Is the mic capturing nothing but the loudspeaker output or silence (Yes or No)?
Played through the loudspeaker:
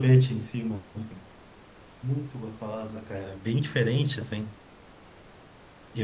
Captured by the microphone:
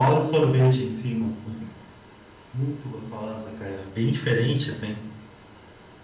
Yes